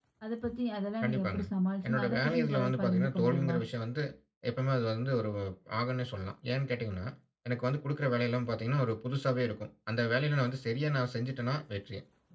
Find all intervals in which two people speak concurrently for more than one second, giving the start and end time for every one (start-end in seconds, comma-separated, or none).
1.9-3.5